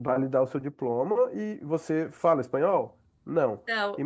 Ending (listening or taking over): listening